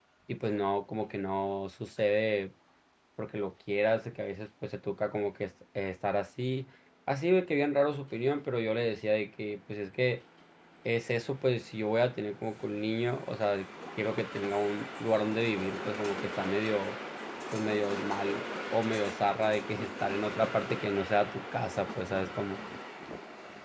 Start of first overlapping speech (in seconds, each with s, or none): none